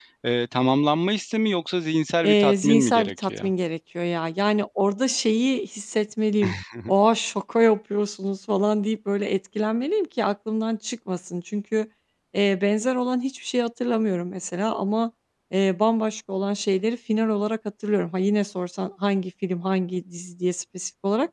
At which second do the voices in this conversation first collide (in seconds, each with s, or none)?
2.2 s